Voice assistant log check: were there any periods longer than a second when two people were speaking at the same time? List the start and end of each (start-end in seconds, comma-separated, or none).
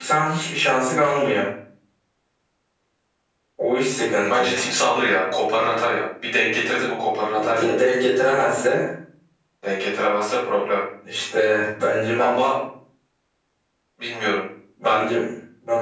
none